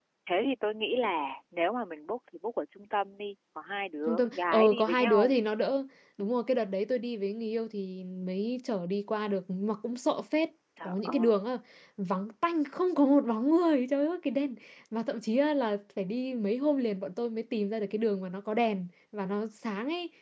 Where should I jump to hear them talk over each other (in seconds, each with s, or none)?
4.1 s